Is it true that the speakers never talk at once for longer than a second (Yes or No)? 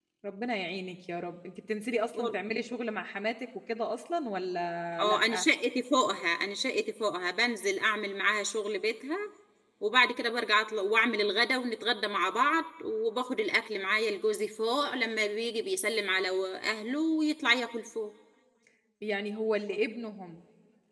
Yes